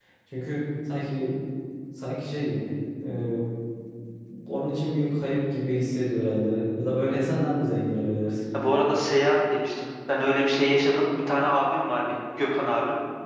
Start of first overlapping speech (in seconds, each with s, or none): none